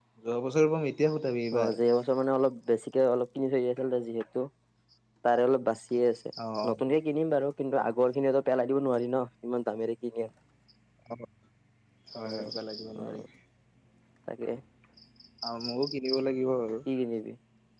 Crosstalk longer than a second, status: none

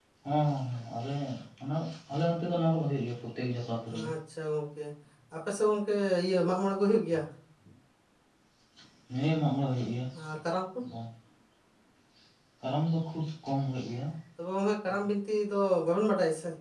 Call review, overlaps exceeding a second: none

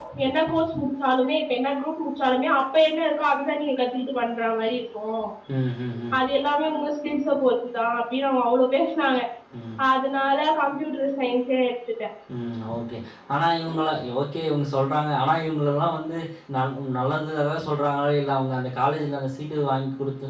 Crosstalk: none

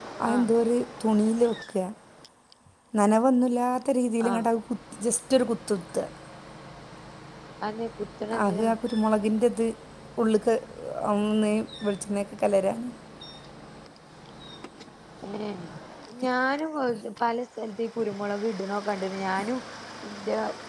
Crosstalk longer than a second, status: none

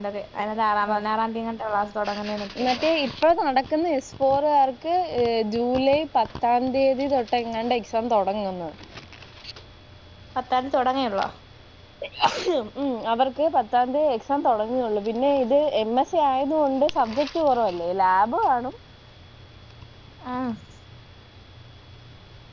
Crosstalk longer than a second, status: none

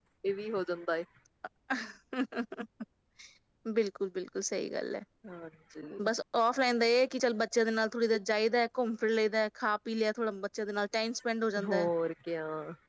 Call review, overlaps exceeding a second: none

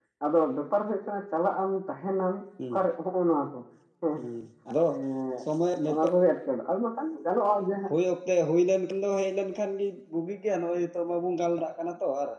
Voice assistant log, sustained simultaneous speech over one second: none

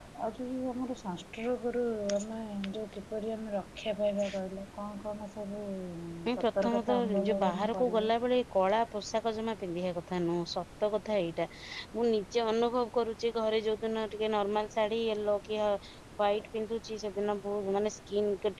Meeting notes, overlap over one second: present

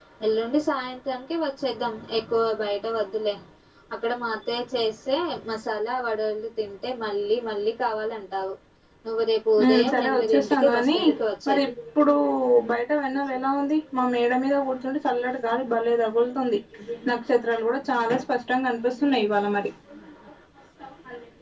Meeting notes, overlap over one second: present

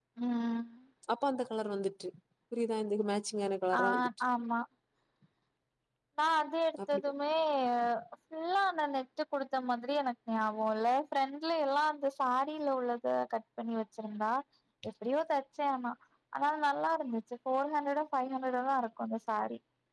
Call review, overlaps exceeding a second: none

